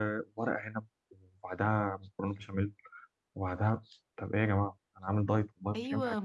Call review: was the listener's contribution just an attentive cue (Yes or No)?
No